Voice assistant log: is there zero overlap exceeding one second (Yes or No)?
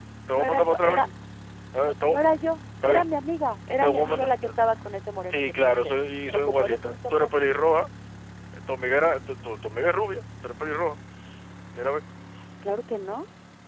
No